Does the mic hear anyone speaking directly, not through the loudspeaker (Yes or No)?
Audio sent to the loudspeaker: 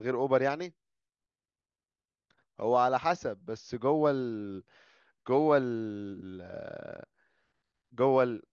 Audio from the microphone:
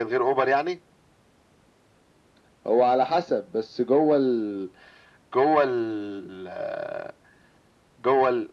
No